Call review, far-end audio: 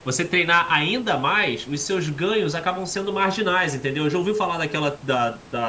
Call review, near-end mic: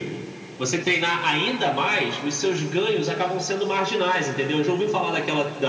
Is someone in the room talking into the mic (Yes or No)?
No